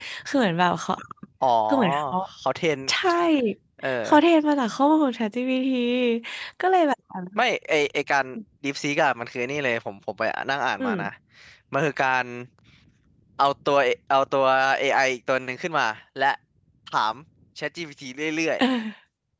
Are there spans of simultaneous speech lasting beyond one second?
No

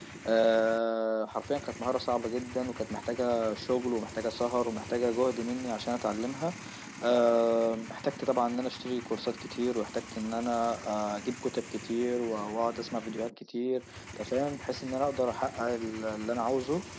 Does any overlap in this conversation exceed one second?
No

